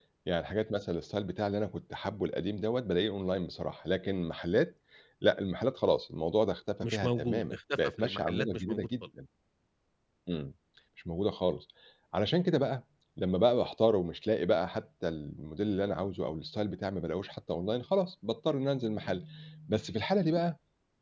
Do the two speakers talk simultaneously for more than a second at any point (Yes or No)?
Yes